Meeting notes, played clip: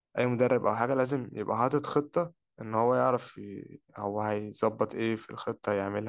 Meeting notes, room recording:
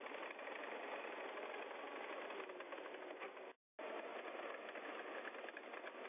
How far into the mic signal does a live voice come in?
none

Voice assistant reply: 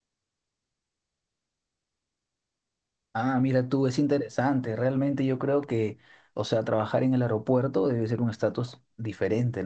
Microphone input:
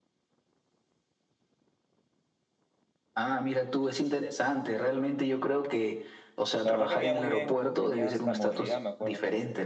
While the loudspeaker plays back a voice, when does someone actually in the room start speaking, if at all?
7 s

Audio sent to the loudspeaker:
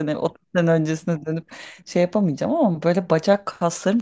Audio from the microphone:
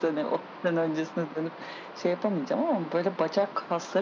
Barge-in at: none

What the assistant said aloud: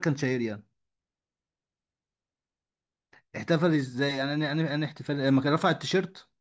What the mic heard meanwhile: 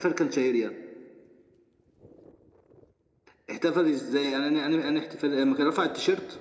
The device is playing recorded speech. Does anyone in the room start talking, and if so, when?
none

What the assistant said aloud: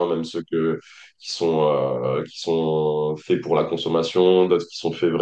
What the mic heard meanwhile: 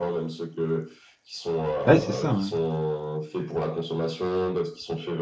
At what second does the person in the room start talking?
2 s

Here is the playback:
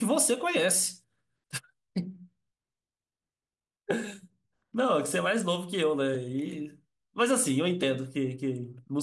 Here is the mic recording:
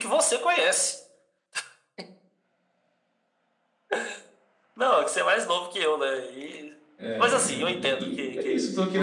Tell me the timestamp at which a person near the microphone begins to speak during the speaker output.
7 s

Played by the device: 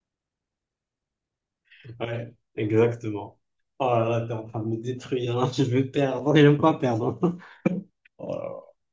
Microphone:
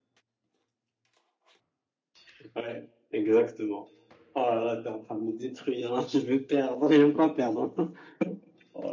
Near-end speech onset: none

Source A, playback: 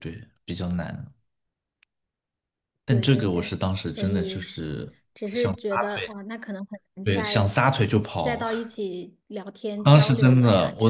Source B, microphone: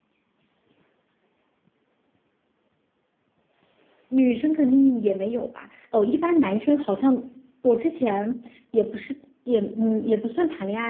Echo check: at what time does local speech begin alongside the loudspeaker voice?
4 s

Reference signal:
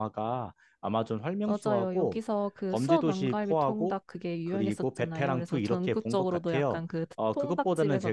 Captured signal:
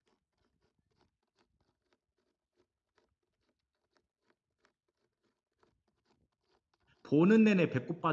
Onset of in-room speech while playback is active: 7 s

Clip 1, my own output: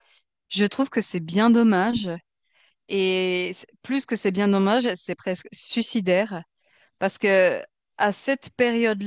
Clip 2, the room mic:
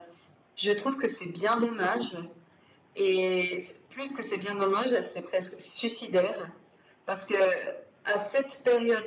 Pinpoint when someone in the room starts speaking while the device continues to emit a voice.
none

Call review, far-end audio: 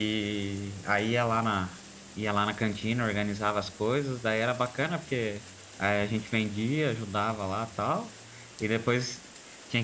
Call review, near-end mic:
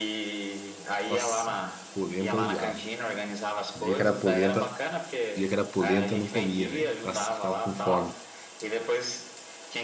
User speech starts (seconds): 1 s

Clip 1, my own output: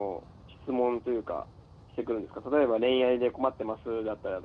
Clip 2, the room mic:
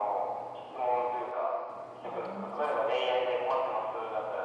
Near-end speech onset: 2 s

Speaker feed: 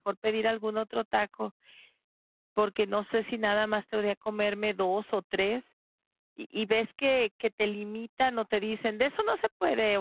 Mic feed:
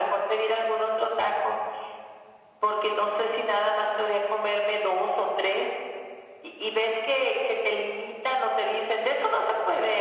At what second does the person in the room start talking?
none

